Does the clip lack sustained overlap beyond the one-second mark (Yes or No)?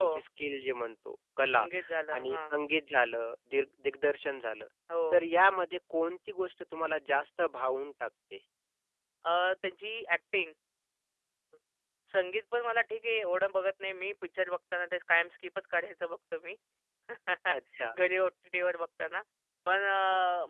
Yes